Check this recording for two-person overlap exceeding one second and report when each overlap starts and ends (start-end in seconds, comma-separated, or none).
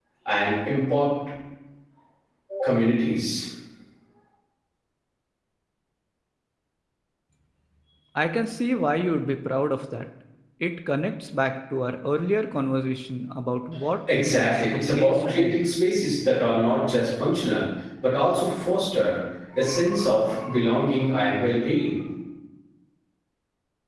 14.2-15.7